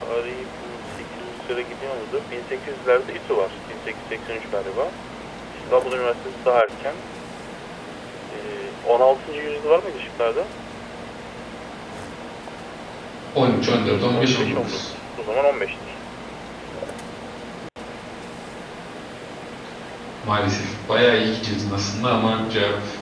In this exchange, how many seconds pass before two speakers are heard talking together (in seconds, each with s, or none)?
13.4 s